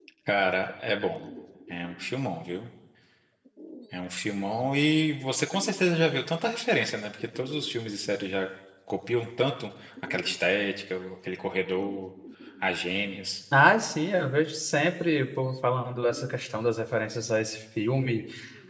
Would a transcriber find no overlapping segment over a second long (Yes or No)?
Yes